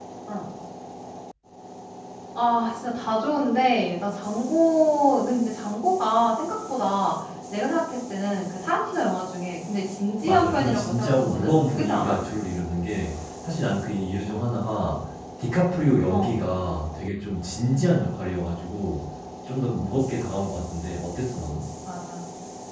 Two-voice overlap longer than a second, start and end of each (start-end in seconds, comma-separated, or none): 10.2-12.2